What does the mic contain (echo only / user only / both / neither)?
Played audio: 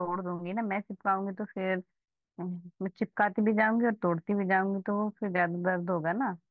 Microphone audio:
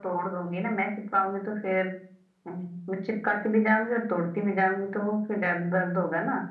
echo only